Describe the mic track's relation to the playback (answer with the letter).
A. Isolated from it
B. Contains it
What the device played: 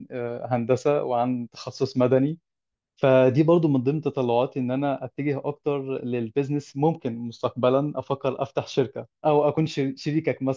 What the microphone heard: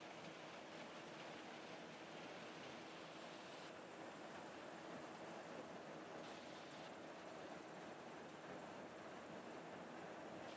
A